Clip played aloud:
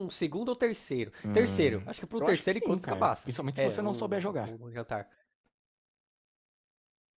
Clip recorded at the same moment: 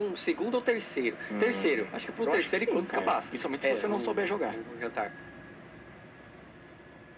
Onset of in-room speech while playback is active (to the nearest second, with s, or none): none